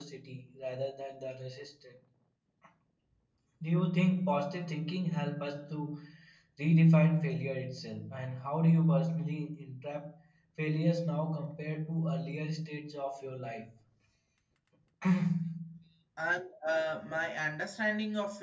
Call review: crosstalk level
none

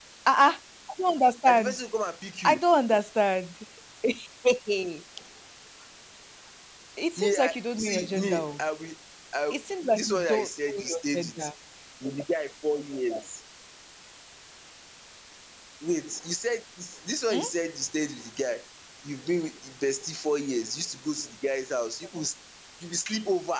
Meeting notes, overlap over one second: present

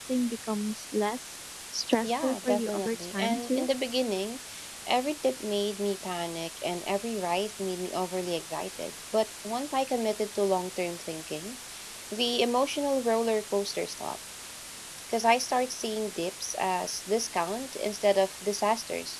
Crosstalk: present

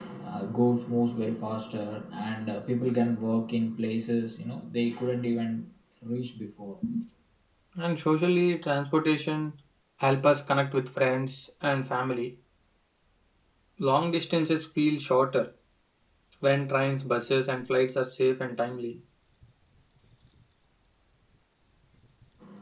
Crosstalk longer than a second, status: none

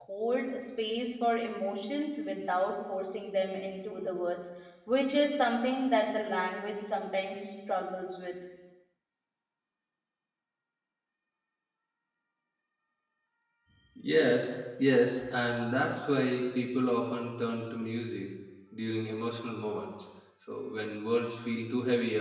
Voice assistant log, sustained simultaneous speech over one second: none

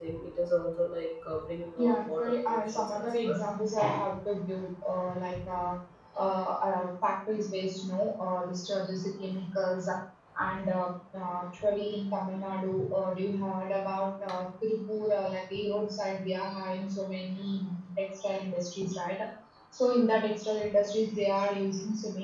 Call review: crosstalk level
present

